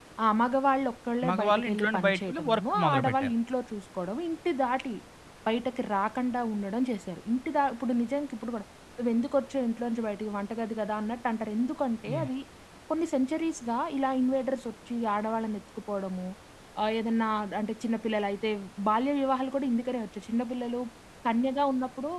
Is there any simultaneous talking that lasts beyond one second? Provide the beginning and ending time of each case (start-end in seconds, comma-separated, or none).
1.3-3.3